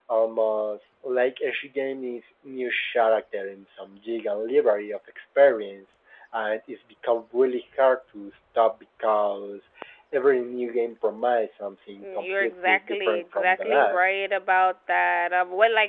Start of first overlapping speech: 12.0 s

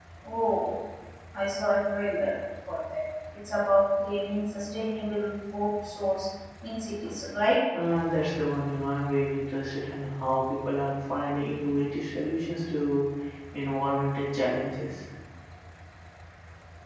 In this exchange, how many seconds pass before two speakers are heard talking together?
none

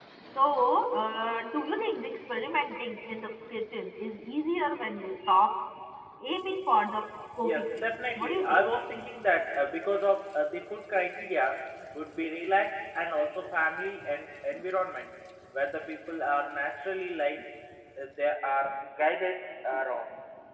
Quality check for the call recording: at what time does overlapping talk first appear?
7.4 s

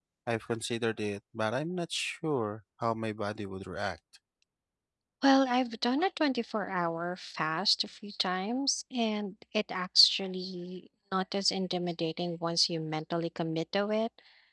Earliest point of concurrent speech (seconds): none

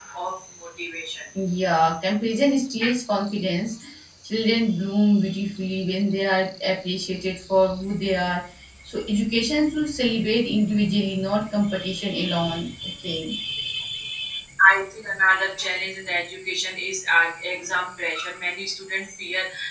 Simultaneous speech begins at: none

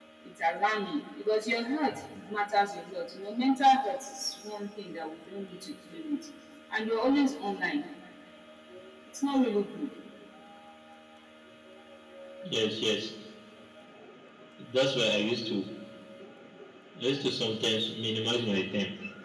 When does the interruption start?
none

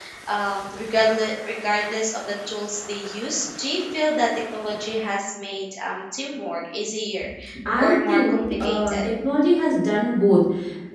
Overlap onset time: 7.8 s

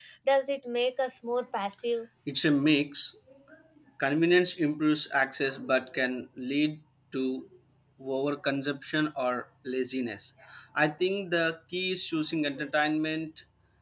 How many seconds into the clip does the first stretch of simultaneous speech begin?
none

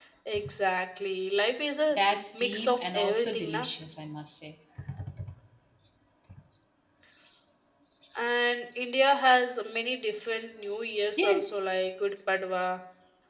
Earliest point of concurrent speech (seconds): 2.4 s

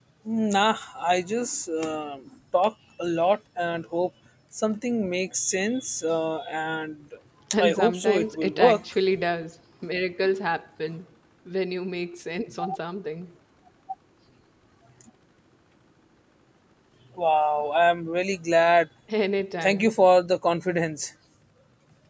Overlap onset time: 7.6 s

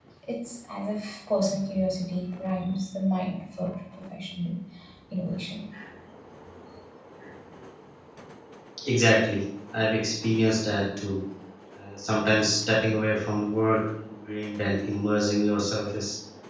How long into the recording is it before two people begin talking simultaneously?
none

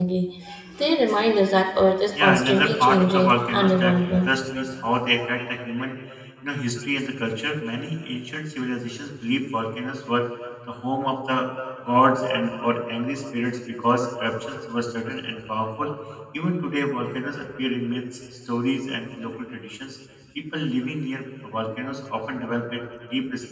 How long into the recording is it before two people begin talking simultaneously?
2.1 s

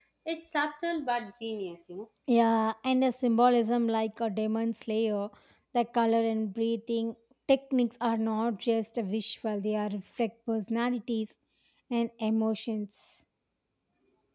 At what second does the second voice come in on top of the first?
none

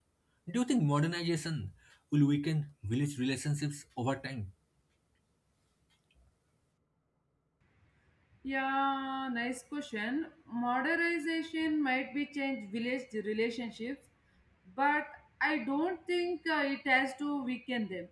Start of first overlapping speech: none

